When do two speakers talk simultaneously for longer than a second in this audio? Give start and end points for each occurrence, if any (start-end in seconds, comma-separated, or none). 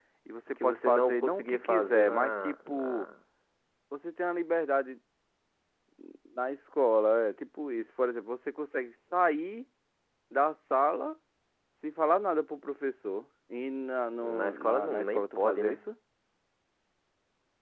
0.6-3.1, 14.2-15.8